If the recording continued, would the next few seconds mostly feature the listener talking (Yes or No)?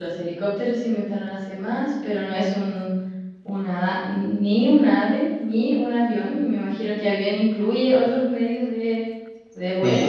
Yes